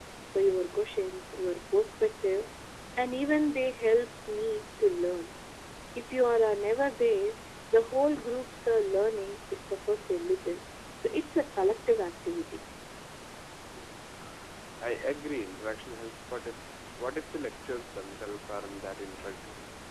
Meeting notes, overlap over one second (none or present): none